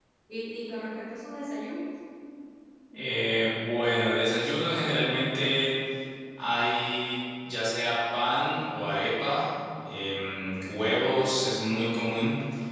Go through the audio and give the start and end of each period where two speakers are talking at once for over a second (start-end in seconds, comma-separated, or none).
none